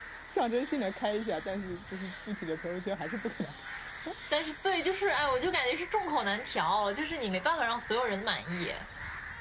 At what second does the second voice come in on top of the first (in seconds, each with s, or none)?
none